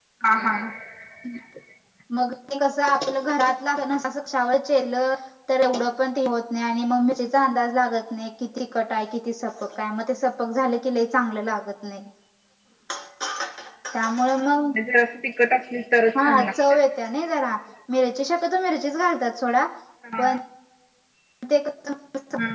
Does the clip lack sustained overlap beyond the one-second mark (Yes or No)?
Yes